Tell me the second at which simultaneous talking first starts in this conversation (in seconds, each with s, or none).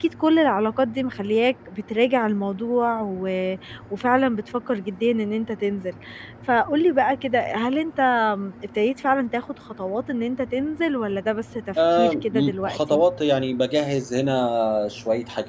11.8 s